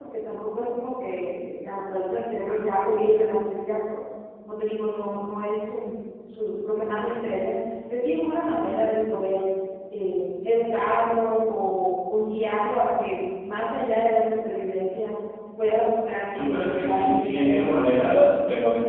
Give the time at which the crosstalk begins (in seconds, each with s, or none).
16.3 s